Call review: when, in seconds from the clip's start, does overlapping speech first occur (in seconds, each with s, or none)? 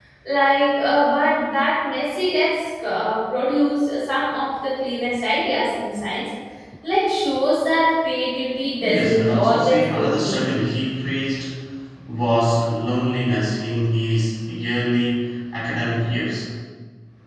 8.8 s